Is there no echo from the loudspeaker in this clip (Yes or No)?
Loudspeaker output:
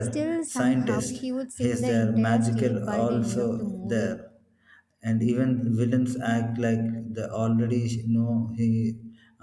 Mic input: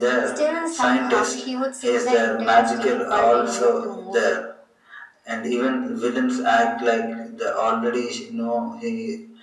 No